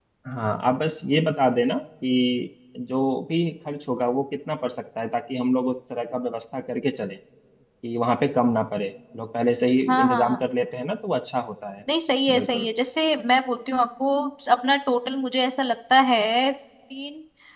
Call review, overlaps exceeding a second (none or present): none